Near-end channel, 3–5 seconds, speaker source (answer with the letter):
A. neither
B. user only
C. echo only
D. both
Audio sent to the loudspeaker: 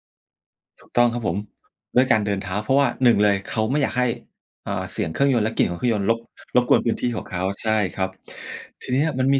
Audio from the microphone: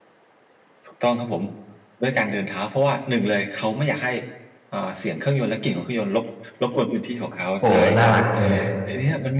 C